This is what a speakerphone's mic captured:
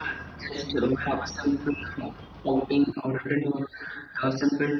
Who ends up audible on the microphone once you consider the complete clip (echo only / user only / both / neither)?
echo only